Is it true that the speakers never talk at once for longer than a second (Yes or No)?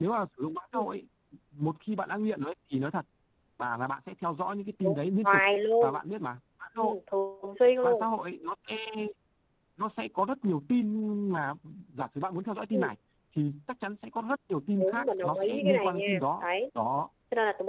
No